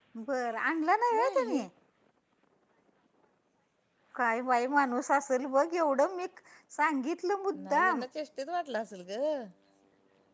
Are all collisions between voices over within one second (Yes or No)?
Yes